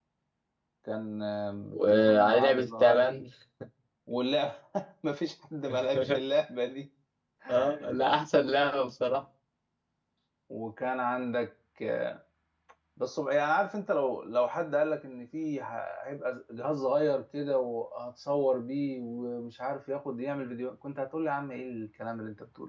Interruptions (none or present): present